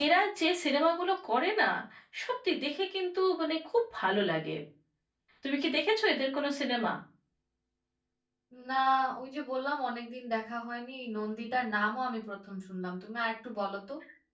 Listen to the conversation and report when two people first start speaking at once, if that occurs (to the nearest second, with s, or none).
none